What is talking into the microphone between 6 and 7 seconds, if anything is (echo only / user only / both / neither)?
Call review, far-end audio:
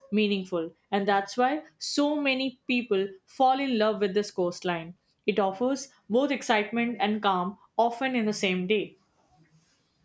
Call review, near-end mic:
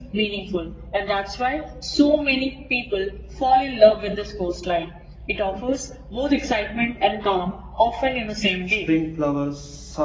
echo only